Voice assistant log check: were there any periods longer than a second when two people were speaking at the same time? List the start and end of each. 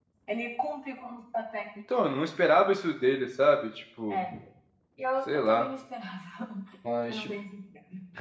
none

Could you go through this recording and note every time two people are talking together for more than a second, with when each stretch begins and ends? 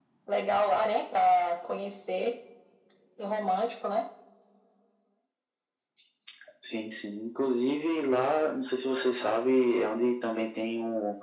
none

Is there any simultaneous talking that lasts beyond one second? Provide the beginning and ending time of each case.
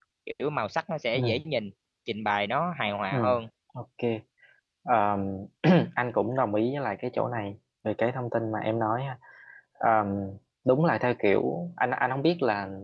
none

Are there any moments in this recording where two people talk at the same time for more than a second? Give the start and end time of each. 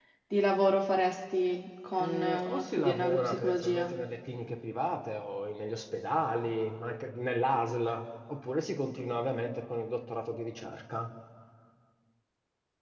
2.0-3.9

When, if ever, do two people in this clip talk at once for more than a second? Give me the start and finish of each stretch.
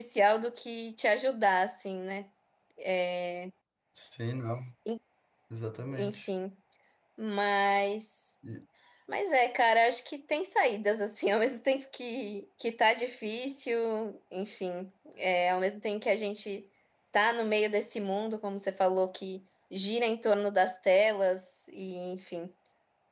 none

